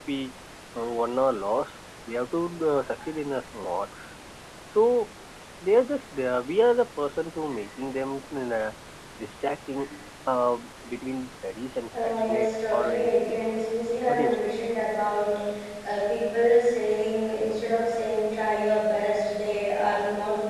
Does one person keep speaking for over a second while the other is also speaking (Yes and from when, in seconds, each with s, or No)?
Yes, from 12.0 s